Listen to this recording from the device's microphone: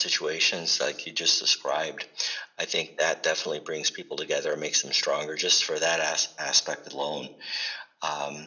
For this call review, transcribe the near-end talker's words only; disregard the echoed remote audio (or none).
none